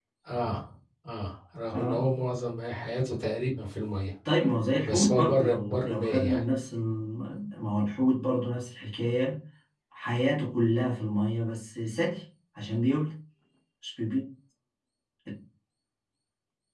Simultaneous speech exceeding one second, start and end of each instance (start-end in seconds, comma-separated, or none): 4.8-6.5